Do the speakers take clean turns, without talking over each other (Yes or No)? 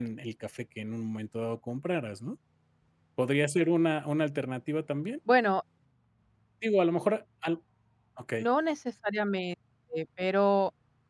Yes